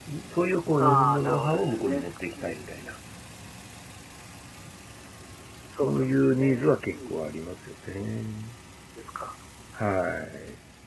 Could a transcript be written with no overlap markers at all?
No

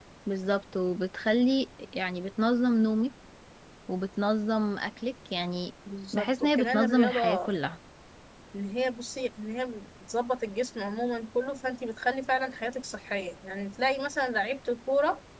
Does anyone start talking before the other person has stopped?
Yes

